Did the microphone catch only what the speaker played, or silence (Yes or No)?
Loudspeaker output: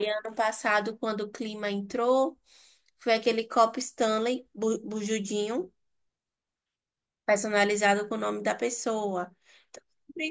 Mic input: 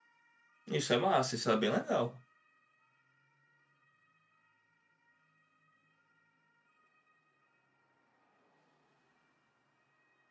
No